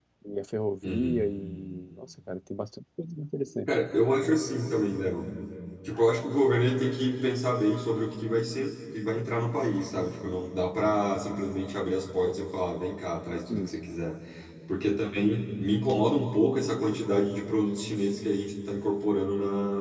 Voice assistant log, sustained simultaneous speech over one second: none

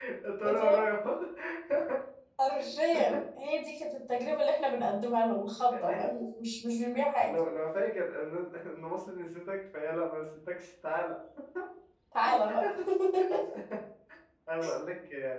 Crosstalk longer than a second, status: none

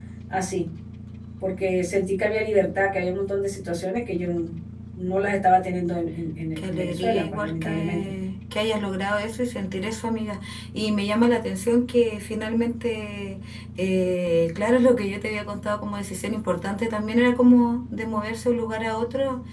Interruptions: present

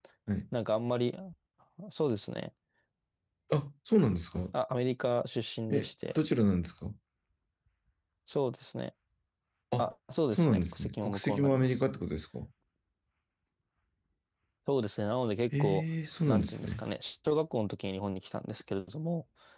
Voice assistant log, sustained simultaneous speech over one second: present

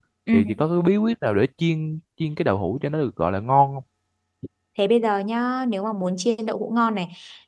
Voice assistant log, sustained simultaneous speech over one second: none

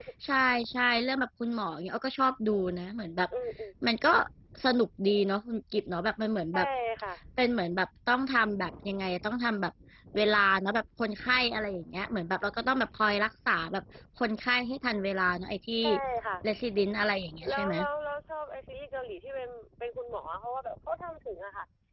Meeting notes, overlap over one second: none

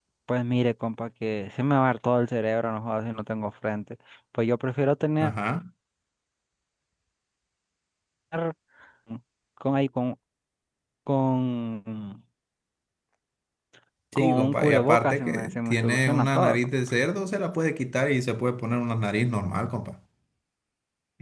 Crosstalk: present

